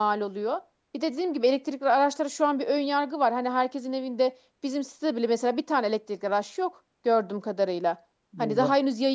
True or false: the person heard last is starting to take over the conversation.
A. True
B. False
B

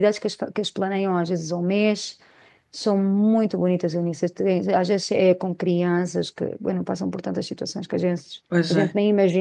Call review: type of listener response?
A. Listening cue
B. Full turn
B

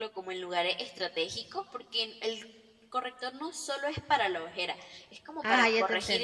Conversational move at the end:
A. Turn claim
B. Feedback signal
A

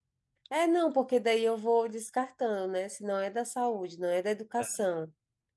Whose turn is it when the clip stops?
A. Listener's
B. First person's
B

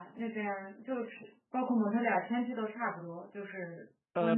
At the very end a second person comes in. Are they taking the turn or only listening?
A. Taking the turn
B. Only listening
A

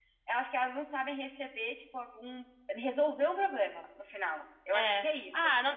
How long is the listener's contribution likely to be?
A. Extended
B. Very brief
A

